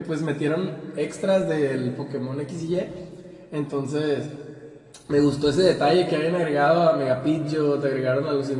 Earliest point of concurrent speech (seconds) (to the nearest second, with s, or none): none